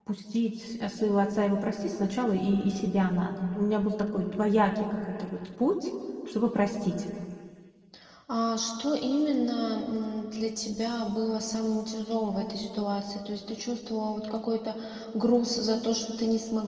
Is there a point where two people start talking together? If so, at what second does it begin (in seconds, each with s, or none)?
none